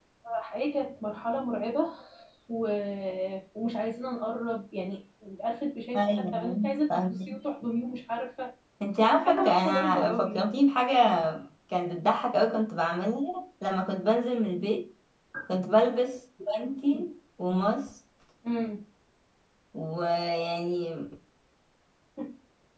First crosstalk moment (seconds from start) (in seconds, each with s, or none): 5.9 s